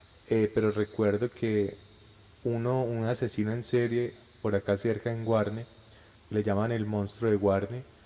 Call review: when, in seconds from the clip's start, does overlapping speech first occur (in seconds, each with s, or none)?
none